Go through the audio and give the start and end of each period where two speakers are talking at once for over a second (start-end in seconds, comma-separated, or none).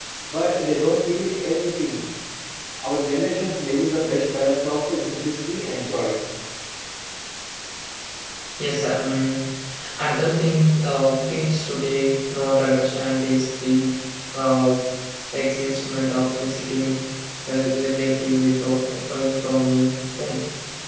none